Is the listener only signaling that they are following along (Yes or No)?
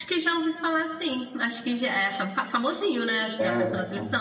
No